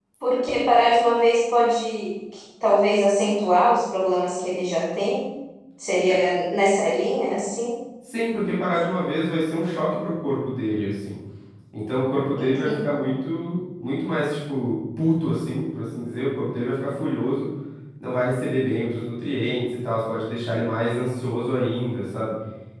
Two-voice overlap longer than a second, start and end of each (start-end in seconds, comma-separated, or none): none